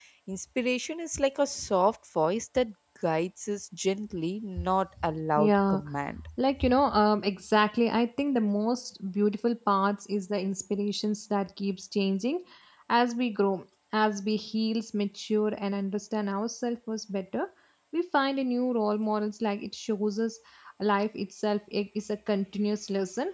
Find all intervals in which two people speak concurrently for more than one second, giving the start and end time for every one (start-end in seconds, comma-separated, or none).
none